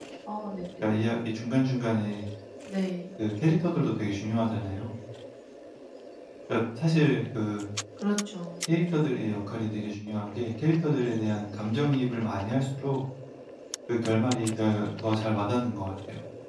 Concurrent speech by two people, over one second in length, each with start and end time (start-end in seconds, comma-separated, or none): none